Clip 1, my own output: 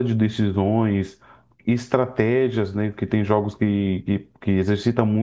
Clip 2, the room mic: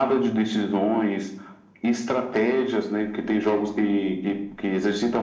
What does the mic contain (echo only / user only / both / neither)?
echo only